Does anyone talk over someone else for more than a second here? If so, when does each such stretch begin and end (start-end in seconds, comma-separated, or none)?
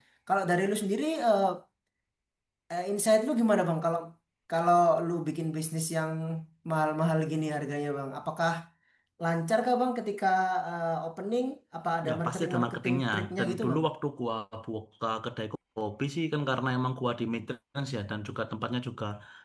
12.1-13.8